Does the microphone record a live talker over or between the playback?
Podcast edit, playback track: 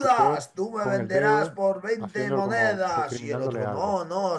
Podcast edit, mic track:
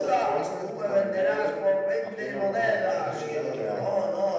Yes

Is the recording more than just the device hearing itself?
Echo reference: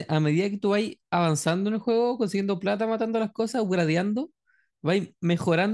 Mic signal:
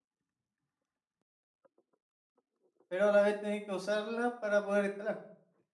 Yes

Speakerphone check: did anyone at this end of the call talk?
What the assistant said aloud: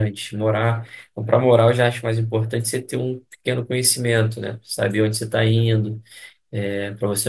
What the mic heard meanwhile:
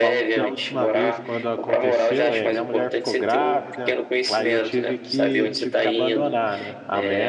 Yes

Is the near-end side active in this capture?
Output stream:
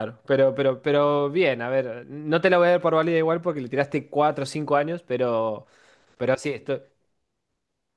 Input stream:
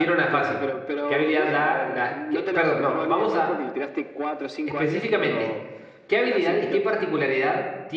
Yes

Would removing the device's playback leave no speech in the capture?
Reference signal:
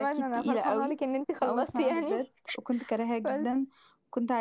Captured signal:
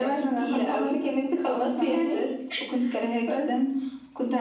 Yes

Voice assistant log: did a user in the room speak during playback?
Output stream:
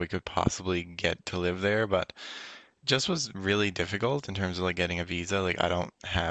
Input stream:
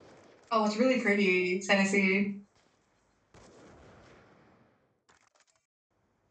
Yes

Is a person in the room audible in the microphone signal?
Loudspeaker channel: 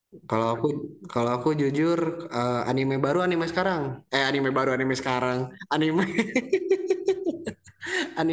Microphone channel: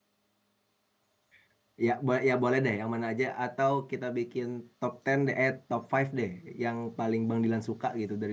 Yes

